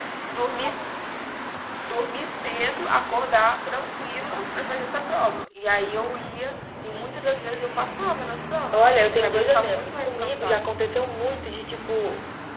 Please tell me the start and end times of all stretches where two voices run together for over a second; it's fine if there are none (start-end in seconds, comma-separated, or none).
8.7-10.7